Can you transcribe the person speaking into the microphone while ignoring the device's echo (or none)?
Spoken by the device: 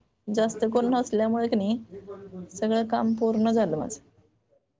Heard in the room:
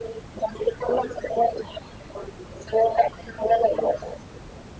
none